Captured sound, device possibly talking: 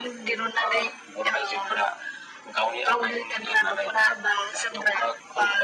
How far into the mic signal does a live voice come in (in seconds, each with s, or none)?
none